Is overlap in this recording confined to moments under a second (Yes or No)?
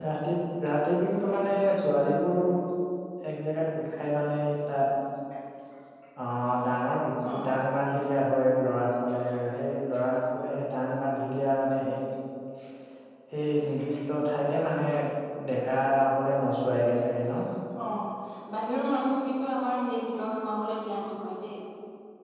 Yes